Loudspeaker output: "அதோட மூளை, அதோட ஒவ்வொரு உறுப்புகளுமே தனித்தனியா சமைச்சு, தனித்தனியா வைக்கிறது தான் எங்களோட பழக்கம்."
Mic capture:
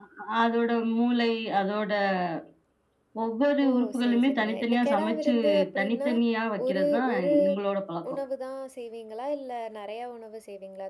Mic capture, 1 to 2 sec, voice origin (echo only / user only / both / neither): echo only